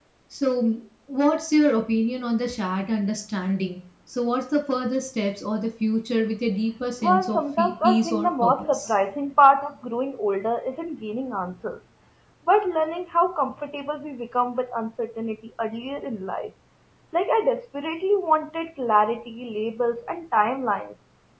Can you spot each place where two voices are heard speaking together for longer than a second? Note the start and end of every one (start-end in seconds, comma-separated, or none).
7.0-8.9